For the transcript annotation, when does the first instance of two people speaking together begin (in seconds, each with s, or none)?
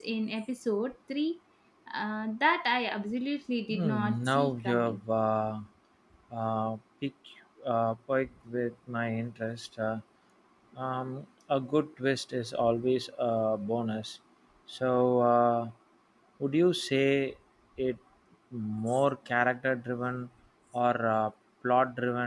3.7 s